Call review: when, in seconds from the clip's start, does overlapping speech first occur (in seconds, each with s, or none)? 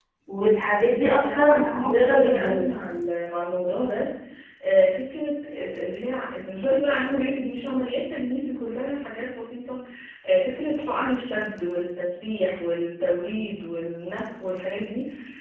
1.0 s